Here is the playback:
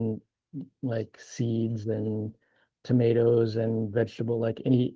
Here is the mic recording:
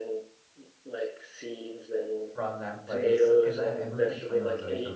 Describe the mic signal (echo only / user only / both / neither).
both